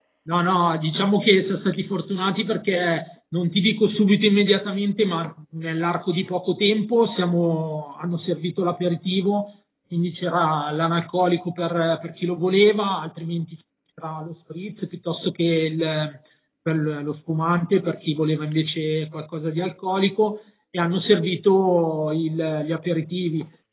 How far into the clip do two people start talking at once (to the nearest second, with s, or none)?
none